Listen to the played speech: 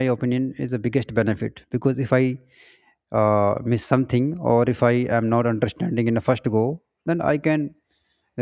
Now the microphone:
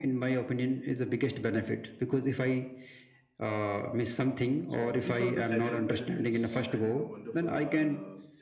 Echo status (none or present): present